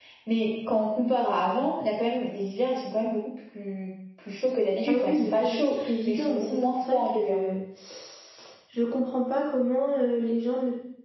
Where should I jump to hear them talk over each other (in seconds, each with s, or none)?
4.9 s